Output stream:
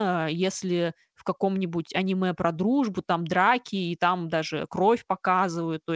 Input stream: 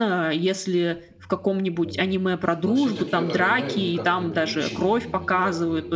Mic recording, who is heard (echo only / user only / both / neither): both